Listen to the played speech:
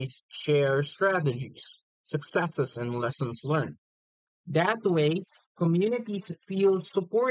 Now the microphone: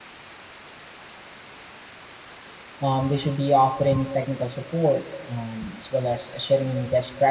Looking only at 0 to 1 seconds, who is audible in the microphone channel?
neither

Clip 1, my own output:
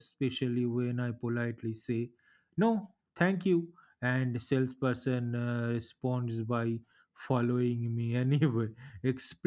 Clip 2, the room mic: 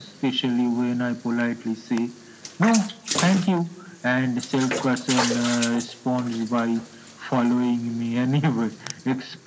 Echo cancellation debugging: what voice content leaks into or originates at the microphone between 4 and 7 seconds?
echo only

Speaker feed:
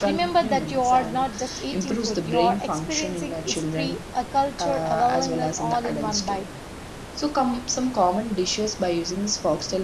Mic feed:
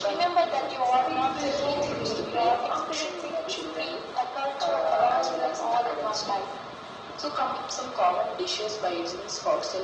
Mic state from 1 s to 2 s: both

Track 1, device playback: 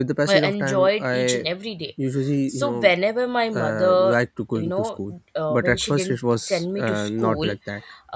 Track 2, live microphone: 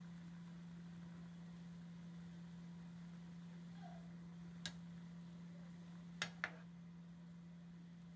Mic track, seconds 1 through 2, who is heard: neither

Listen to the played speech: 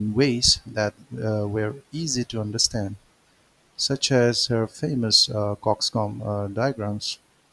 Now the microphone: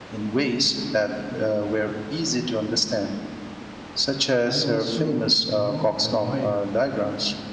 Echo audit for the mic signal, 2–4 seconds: echo only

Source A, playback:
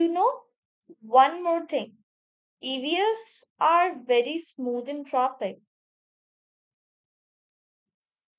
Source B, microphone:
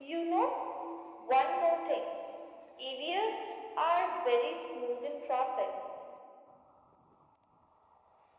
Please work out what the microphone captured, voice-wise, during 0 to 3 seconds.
echo only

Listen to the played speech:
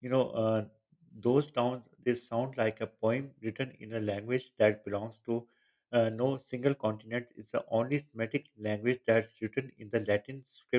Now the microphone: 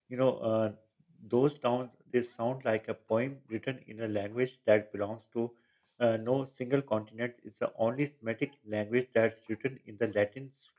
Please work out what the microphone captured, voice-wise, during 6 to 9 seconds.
echo only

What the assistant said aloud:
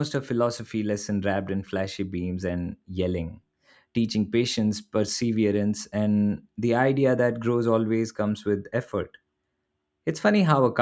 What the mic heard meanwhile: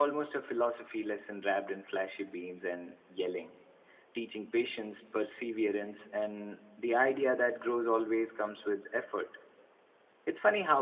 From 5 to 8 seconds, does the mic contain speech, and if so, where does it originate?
echo only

